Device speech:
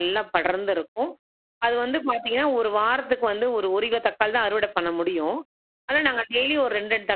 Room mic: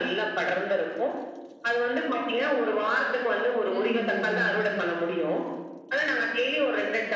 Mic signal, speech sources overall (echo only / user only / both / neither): both